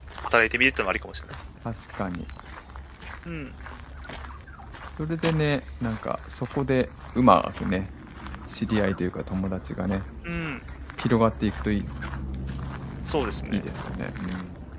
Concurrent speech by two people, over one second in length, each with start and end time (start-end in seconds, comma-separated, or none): none